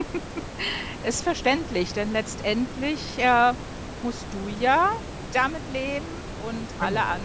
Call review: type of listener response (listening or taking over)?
listening